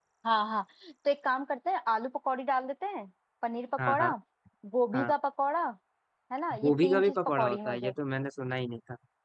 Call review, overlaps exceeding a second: present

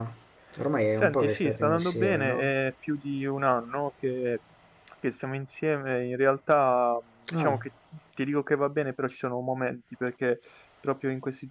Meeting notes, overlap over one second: present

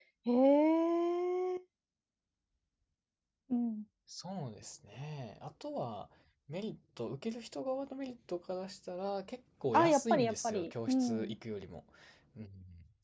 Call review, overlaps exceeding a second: present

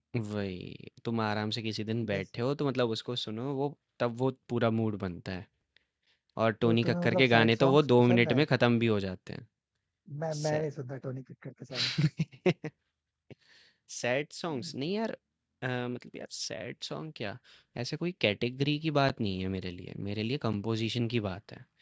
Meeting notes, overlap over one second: present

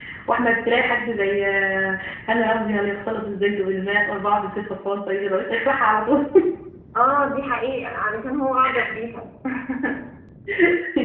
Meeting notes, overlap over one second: none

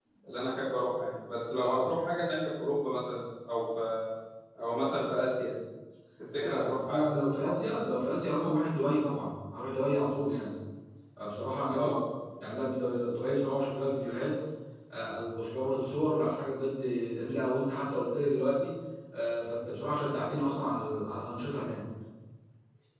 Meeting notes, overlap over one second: present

